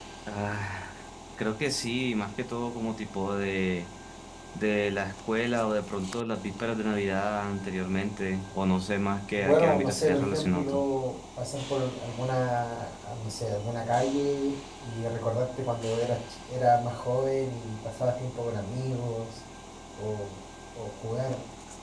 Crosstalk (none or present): present